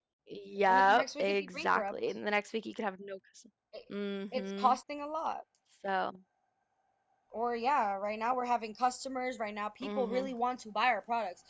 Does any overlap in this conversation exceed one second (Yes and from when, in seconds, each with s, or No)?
Yes, from 0.7 s